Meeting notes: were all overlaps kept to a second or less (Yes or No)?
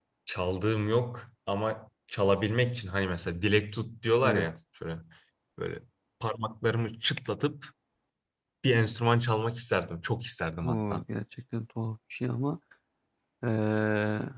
Yes